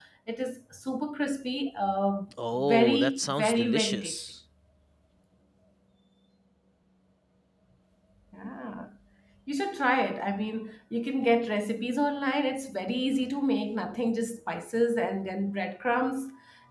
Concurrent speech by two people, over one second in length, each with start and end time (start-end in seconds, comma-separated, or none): 2.6-4.2